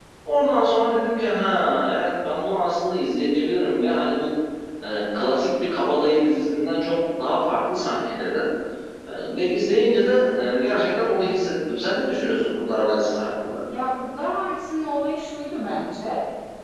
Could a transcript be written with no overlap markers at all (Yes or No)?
Yes